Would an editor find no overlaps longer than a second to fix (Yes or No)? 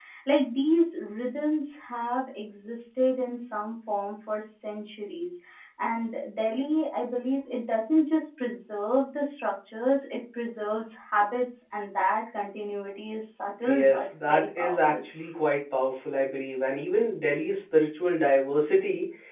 No